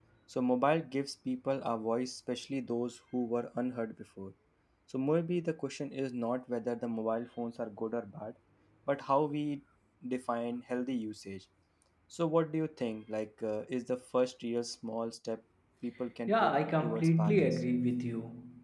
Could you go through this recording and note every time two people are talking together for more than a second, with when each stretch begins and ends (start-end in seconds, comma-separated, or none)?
16.3-17.6